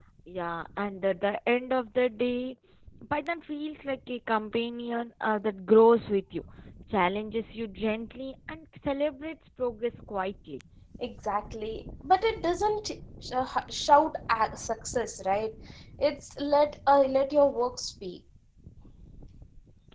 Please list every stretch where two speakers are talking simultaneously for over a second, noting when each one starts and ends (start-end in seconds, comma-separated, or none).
none